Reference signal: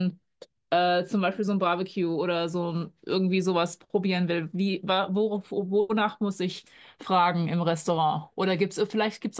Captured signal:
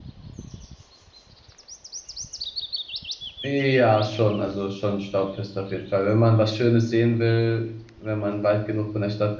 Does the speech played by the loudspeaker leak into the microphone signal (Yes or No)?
No